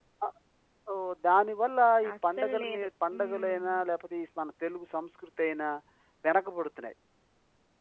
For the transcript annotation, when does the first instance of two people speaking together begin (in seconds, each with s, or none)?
2.3 s